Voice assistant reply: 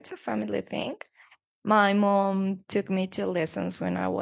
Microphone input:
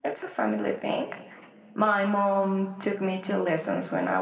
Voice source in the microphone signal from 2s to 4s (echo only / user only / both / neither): echo only